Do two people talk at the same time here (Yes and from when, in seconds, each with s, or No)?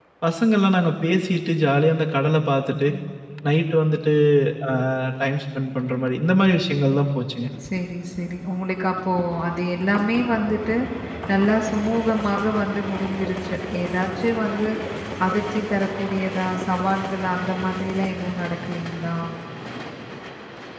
No